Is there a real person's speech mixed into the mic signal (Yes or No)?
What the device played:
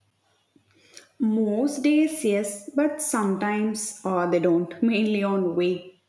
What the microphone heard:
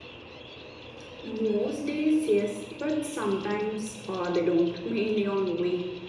No